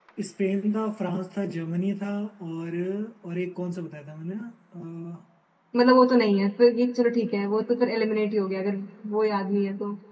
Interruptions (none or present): none